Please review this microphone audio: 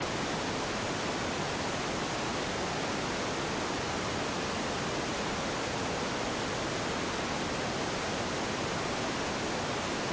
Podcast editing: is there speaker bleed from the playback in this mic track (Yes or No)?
No